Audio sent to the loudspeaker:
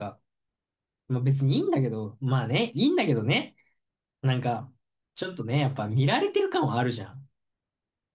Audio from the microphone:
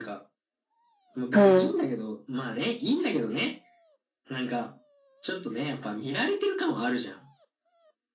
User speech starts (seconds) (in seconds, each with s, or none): 1.3 s